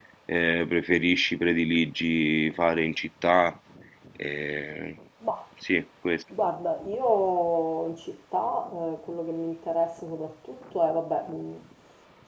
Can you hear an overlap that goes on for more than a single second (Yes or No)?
No